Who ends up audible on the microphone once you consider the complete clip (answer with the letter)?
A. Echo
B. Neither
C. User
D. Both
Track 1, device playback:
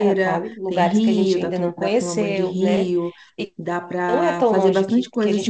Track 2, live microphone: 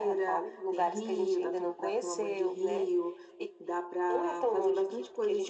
A